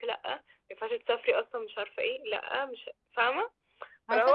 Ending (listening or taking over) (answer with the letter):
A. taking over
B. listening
A